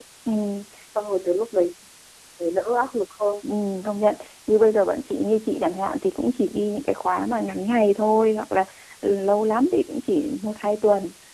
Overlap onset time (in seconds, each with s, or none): none